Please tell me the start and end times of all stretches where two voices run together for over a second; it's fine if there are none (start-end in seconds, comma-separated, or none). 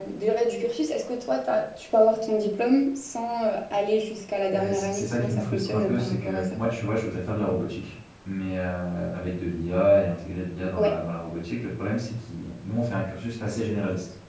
4.5-6.5